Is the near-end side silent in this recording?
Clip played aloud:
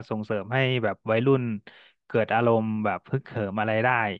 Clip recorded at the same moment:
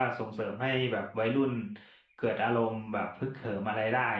Yes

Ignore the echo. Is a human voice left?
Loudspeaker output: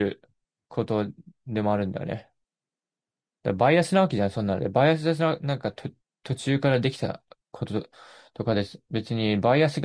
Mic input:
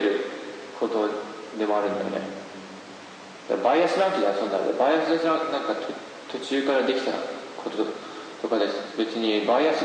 Yes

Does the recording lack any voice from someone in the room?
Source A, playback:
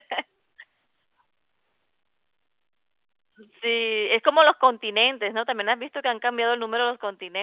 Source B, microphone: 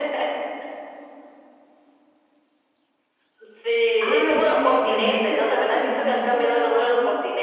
No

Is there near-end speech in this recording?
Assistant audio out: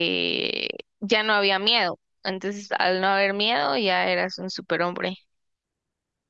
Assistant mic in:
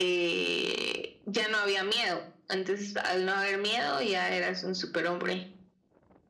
No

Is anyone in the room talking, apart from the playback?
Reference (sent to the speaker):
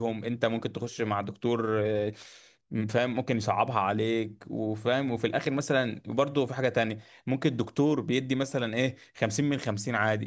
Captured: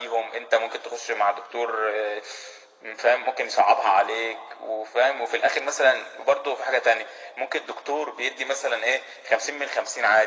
No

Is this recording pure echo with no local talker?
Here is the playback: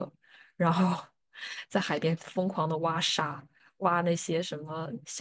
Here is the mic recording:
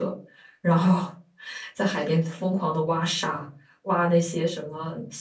Yes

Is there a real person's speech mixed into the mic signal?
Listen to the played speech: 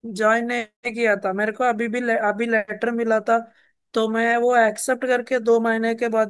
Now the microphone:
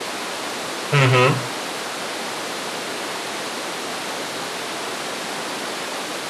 Yes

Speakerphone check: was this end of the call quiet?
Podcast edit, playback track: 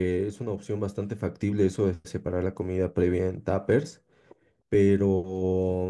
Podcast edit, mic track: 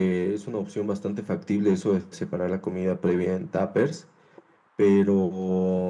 Yes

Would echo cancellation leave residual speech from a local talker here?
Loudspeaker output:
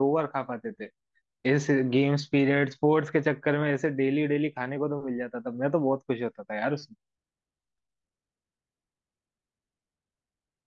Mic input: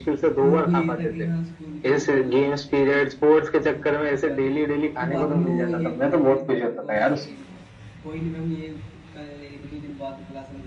Yes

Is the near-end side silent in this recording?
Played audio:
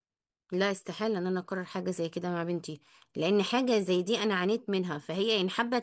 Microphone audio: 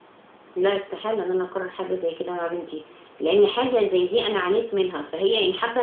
Yes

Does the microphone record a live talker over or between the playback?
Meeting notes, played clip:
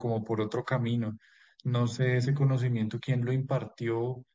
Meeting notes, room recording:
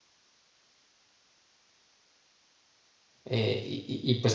Yes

